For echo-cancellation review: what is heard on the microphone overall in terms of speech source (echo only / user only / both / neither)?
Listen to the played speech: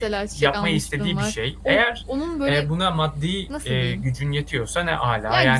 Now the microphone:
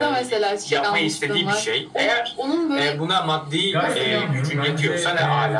both